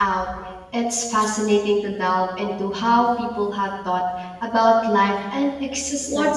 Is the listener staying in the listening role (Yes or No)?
No